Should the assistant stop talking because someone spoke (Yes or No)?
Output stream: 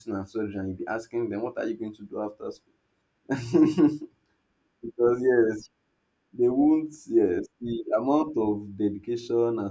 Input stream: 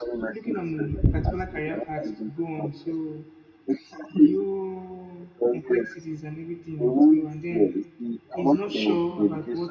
Yes